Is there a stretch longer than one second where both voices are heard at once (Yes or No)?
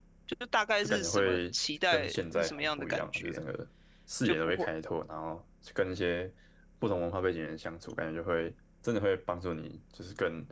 Yes